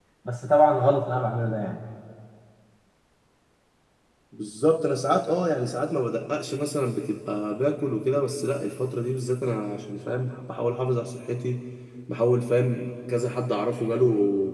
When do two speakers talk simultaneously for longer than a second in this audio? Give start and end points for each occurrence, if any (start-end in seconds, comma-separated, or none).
none